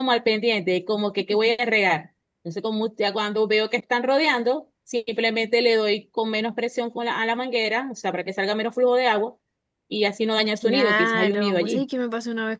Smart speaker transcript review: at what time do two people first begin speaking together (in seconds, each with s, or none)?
10.6 s